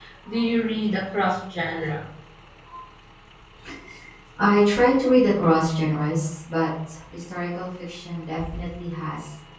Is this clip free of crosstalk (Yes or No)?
Yes